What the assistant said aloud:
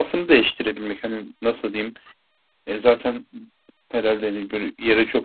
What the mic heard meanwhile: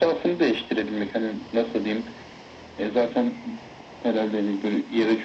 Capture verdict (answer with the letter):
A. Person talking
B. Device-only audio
B